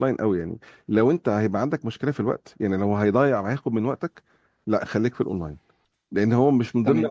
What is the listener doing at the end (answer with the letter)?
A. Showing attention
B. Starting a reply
A